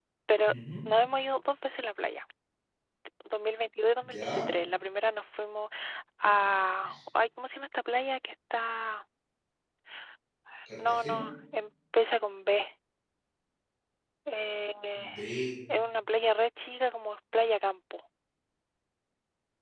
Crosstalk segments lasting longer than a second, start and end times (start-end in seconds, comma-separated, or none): none